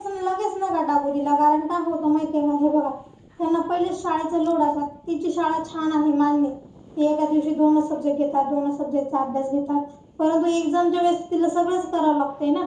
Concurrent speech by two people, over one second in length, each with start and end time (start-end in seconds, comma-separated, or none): none